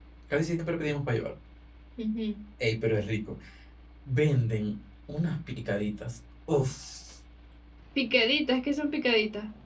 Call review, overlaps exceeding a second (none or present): none